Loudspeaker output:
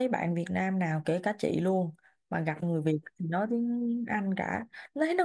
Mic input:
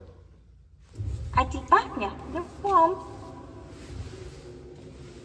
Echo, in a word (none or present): none